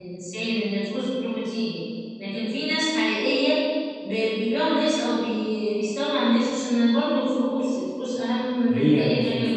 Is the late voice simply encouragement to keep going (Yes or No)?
No